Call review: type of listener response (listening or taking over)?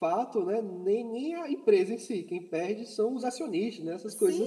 taking over